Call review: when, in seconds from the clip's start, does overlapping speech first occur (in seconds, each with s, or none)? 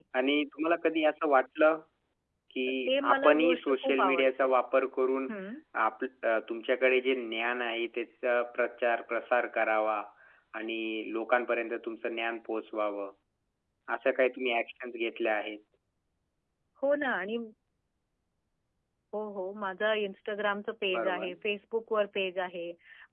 2.9 s